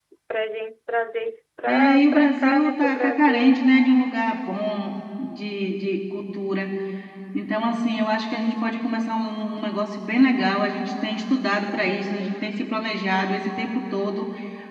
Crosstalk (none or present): present